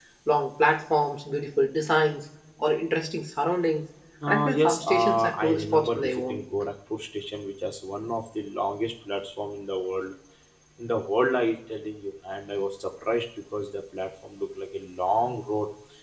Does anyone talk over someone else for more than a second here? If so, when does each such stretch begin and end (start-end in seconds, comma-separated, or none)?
4.2-6.4